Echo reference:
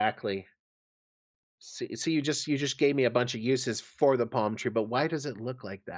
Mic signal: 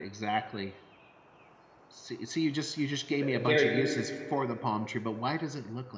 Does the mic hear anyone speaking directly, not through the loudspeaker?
Yes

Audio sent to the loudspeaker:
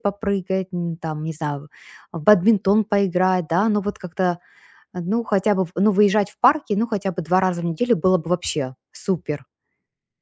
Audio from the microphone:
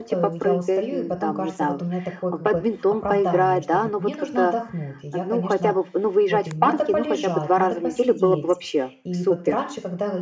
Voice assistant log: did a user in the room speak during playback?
Yes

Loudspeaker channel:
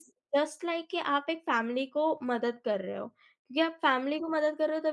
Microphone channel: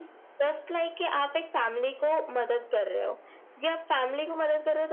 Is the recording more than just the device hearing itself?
No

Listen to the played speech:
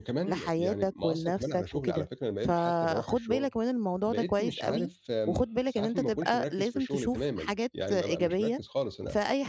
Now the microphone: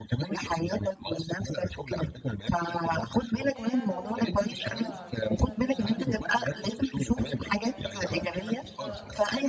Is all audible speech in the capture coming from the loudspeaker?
No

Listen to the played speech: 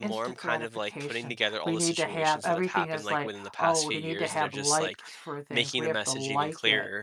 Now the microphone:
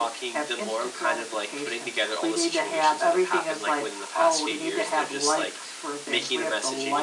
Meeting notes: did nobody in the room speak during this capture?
Yes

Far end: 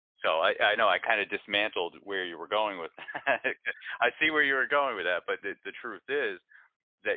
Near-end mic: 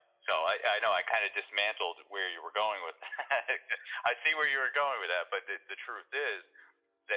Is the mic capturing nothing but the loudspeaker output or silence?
Yes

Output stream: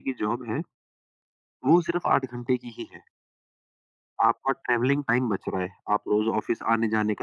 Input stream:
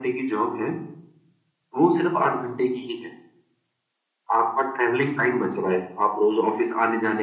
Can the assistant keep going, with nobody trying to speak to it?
Yes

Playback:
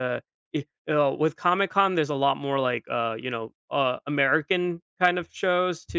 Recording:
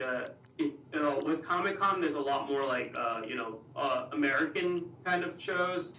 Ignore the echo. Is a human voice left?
No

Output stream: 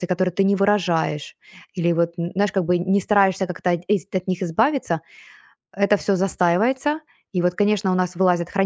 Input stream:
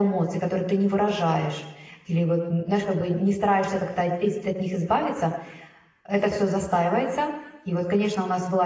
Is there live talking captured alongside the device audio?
No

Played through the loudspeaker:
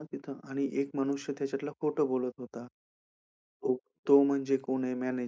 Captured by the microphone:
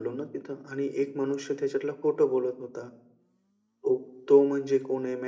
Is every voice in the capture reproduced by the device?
Yes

